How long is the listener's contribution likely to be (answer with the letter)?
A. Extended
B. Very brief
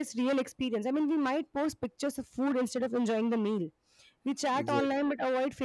B